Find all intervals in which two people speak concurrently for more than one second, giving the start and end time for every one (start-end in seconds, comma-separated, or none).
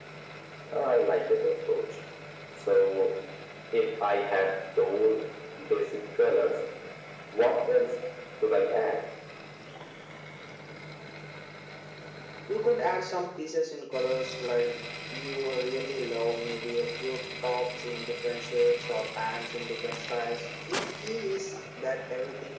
none